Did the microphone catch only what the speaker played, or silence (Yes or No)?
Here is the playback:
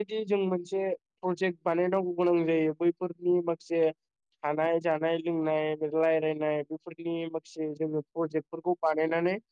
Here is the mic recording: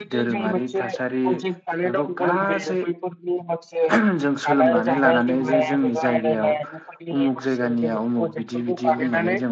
No